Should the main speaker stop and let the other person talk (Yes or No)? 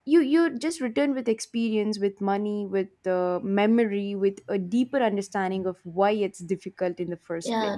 Yes